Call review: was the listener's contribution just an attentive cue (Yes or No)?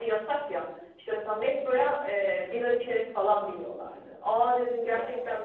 Yes